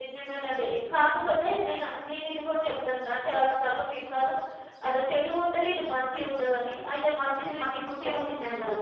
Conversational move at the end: taking over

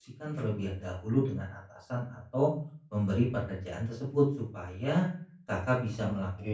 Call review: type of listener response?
listening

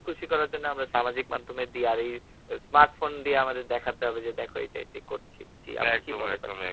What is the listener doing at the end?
taking over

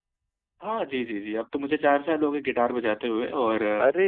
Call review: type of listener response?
listening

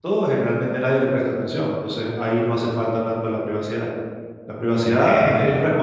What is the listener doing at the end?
listening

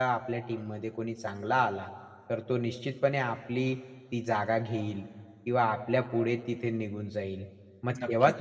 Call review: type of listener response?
listening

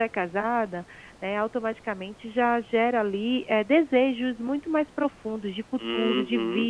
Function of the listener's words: taking over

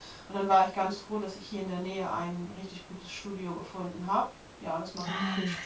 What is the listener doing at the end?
taking over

